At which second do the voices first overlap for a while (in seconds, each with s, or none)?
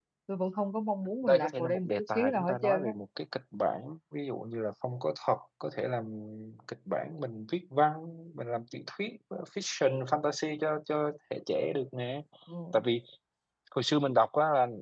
1.3 s